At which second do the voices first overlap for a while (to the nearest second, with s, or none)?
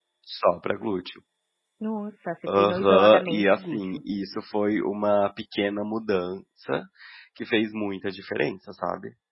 2 s